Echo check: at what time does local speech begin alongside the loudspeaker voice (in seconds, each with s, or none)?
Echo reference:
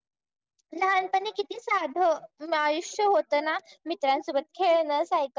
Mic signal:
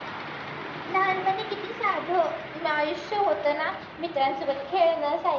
none